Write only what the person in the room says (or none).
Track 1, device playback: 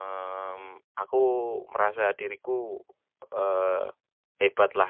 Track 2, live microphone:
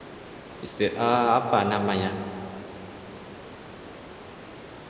istir eee, apa namanya,